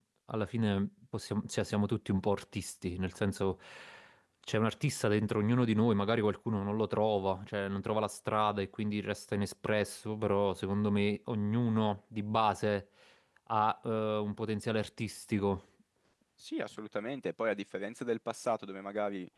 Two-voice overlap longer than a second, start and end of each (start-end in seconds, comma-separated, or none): none